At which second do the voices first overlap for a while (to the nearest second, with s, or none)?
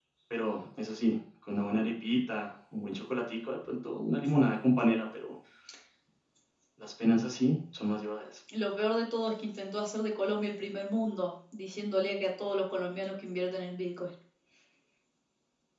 none